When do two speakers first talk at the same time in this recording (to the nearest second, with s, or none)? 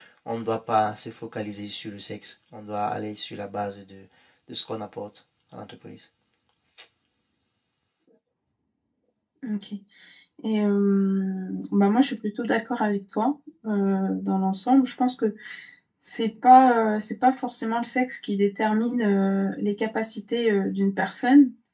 none